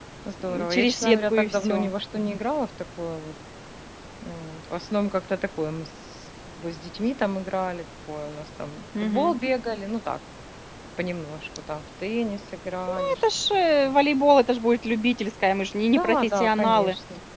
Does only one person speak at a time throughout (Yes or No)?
No